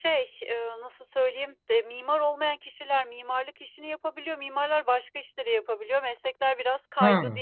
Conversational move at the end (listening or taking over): taking over